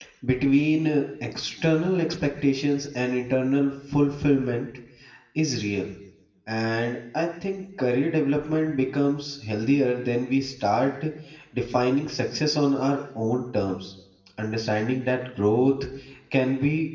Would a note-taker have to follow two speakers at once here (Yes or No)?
No